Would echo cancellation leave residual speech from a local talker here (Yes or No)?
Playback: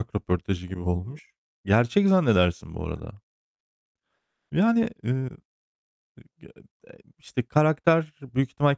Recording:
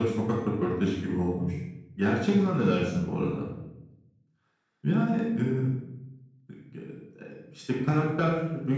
No